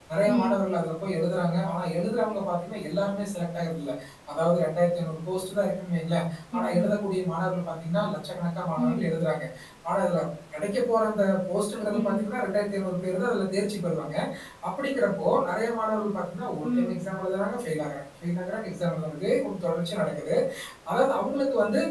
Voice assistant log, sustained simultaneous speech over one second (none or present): none